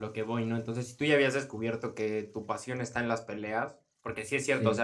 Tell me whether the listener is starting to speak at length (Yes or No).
No